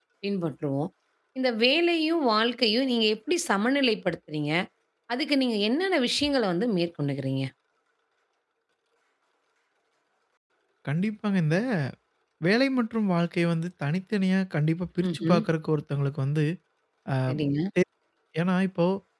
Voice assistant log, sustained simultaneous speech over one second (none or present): none